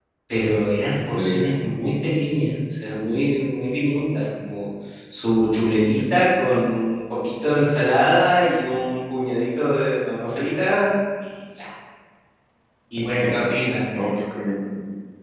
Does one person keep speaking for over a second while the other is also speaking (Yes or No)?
No